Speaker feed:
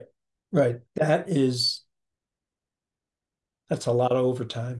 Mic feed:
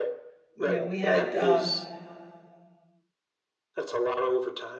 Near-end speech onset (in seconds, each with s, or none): 0.5 s